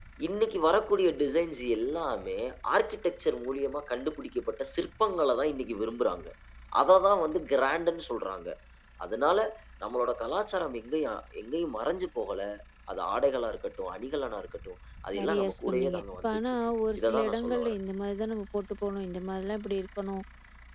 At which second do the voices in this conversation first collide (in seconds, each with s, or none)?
15.1 s